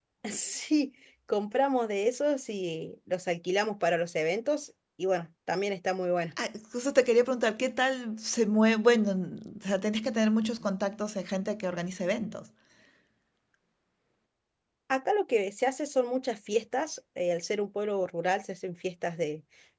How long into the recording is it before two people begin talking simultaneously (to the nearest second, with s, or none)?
none